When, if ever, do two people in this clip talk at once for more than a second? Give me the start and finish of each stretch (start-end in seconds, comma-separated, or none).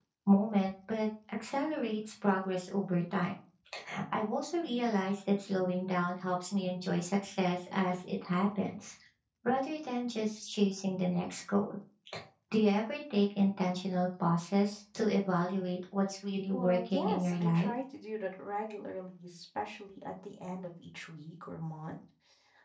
16.5-17.7